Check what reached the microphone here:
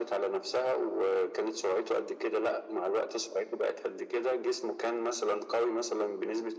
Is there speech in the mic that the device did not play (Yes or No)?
No